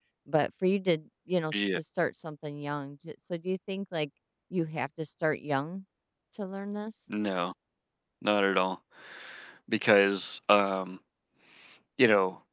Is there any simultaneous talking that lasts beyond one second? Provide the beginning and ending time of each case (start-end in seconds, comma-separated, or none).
none